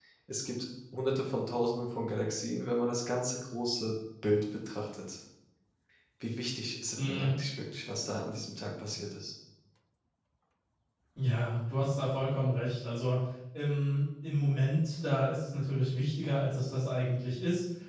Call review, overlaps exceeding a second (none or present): none